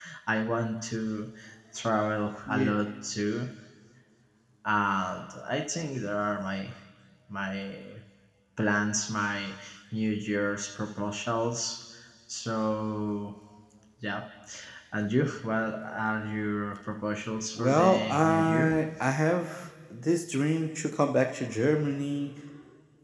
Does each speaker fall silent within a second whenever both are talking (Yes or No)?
No